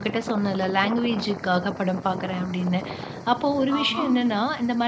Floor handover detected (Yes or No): No